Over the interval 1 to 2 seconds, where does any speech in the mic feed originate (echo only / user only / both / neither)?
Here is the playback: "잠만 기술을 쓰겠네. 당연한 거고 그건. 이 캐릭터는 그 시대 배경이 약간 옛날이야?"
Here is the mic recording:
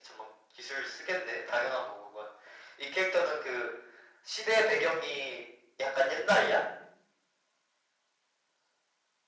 echo only